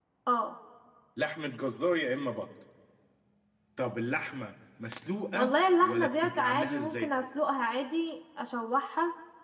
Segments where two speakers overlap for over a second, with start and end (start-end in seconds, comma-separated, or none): 5.3-7.1